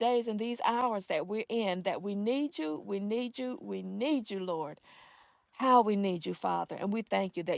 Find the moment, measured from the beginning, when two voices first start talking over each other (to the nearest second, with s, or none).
none